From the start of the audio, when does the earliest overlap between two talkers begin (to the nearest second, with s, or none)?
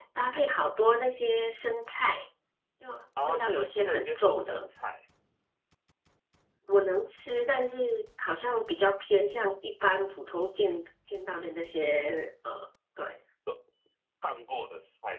3 s